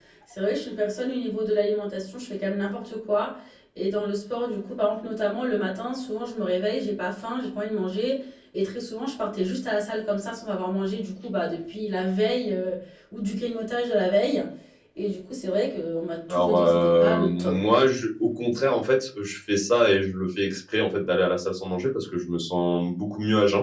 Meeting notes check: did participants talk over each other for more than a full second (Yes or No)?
Yes